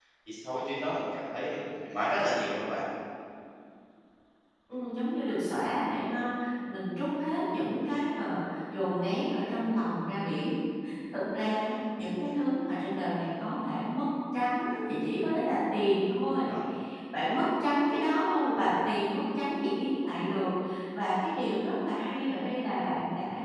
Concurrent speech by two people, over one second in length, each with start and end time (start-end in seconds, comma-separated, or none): none